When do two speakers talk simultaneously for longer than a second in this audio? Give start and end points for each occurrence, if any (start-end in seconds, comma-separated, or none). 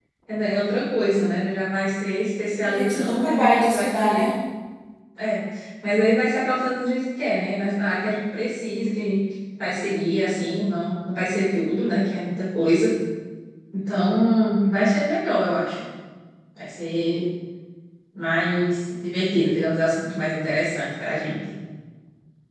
2.6-4.3